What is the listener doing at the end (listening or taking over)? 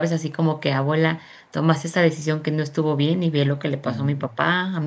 listening